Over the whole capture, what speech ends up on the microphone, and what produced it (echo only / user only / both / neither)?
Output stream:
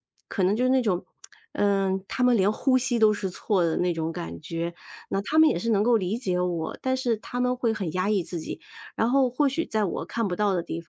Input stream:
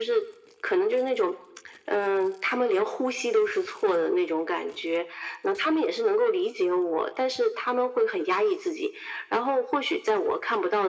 echo only